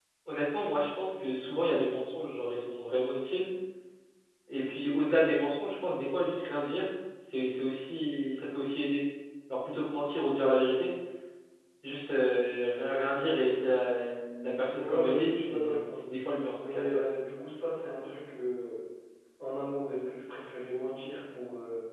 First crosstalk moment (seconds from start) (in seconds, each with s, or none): 14.7 s